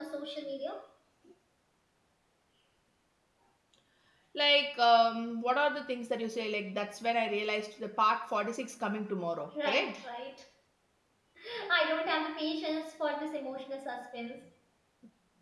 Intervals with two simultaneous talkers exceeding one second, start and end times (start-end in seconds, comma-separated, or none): none